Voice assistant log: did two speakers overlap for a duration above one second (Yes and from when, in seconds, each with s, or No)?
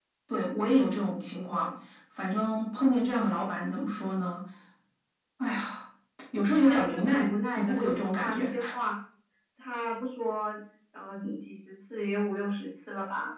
Yes, from 6.5 s